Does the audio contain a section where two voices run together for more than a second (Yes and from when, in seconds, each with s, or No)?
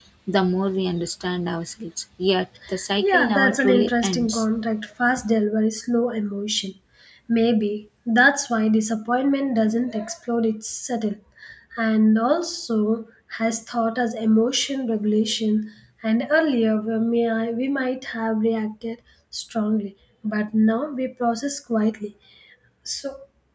Yes, from 2.7 s